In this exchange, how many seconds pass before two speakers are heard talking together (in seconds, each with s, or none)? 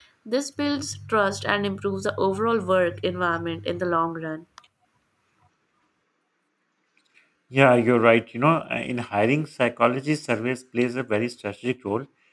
none